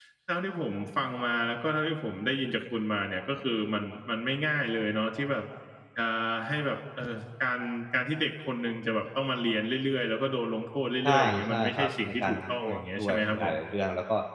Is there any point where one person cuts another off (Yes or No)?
Yes